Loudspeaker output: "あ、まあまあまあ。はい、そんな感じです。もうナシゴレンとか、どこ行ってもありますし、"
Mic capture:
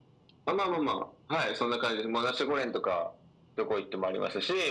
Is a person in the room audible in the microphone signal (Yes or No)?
No